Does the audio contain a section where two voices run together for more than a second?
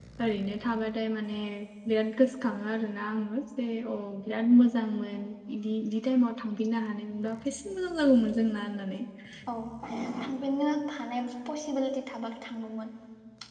No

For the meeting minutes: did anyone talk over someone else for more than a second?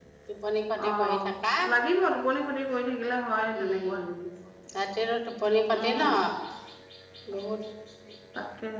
No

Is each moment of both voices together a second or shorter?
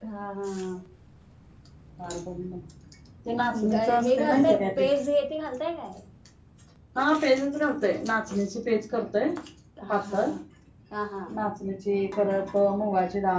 No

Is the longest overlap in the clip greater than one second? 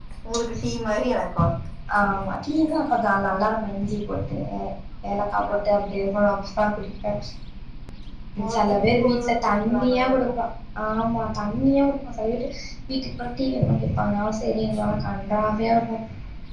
Yes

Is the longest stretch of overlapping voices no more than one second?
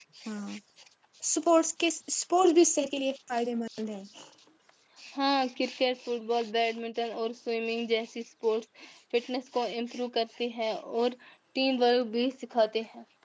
Yes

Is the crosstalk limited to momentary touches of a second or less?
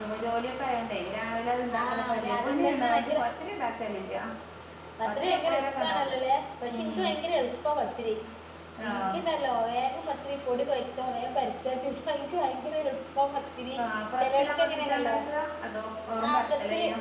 No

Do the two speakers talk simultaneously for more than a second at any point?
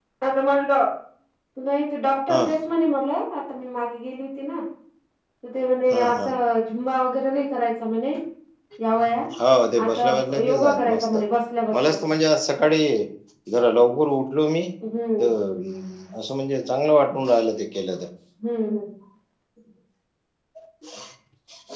Yes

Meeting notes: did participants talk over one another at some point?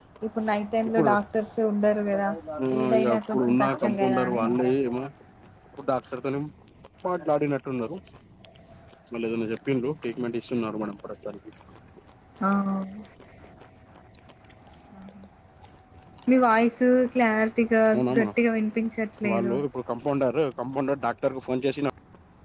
Yes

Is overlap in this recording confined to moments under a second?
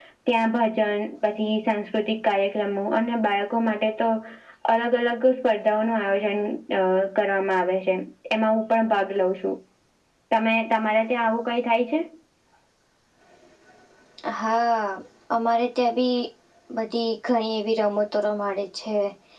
Yes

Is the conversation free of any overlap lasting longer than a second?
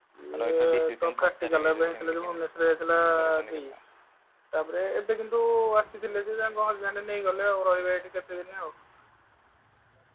No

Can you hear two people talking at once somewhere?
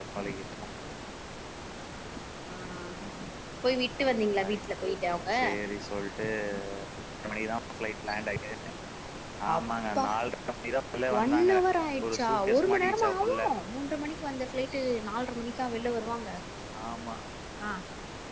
Yes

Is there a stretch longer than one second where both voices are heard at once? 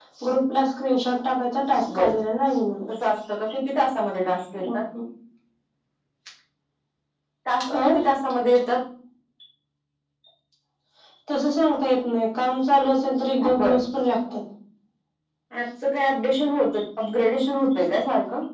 No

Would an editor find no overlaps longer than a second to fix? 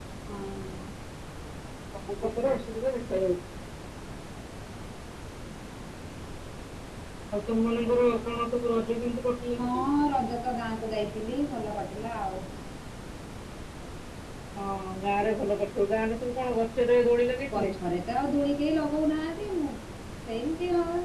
Yes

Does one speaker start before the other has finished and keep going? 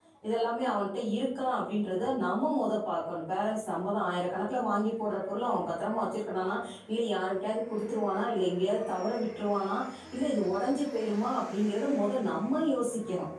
No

